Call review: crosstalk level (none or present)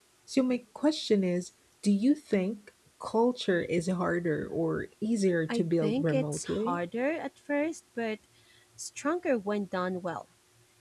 present